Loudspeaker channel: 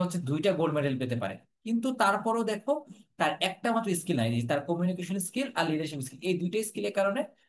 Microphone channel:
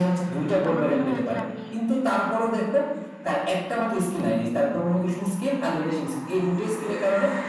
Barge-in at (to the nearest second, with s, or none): 1 s